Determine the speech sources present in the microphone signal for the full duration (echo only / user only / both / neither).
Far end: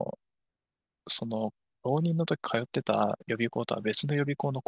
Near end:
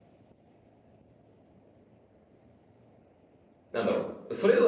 user only